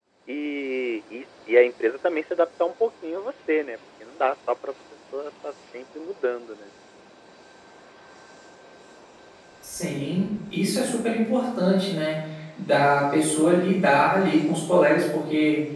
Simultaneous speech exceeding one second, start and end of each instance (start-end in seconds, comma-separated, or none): none